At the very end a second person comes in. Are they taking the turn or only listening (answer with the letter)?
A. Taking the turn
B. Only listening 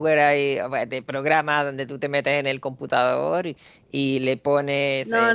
A